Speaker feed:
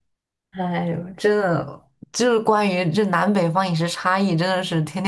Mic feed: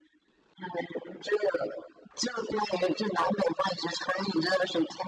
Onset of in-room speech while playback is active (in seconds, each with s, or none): none